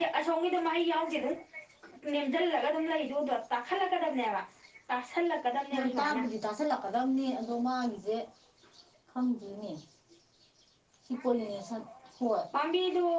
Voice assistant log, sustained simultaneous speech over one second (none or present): none